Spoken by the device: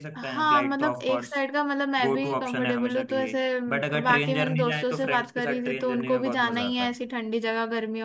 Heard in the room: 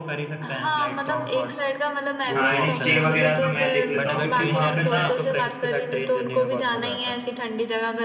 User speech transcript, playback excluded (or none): हाँ एंड स्टे वगैरह का मैं देख लेता हूँ क्योंकि वहां पे ना